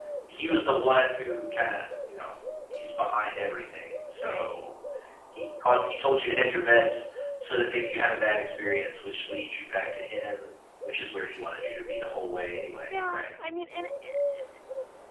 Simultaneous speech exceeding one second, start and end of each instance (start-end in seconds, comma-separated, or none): none